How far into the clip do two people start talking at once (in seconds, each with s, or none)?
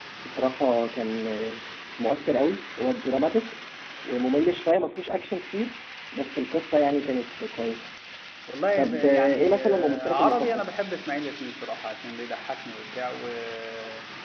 8.8 s